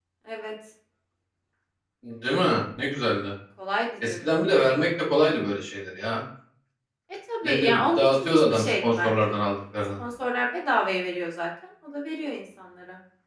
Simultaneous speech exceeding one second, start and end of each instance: 7.5-9.4

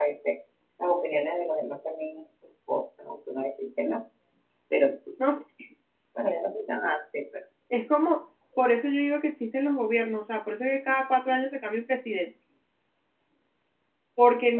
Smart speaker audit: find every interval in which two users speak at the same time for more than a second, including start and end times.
none

